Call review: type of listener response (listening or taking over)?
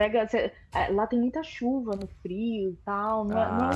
listening